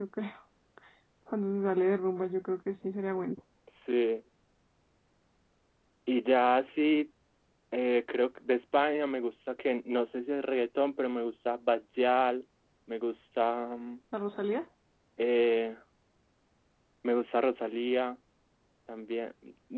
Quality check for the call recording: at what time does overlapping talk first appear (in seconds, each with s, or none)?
none